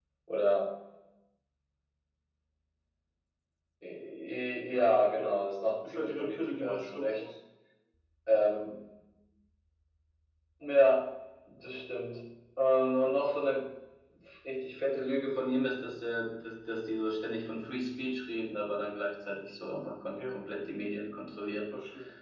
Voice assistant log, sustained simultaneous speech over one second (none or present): present